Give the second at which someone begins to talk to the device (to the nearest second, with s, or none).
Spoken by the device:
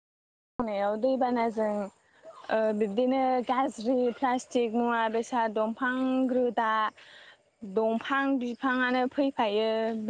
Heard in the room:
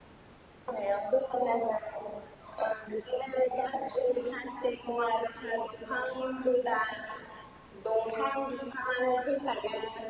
none